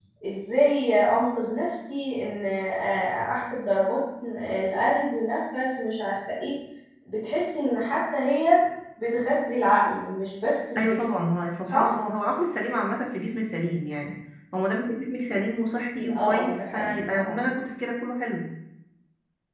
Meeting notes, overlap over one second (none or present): present